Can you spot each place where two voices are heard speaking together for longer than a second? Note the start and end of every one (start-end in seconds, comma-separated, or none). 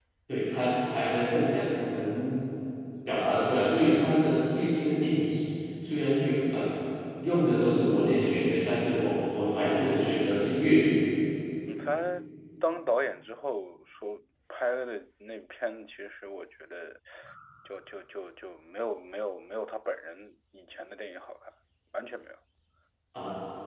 none